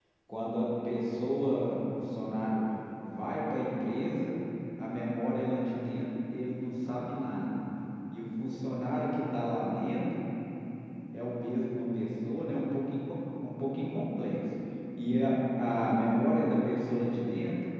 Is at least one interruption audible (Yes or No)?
No